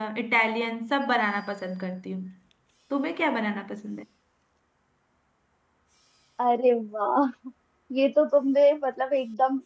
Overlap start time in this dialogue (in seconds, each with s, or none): none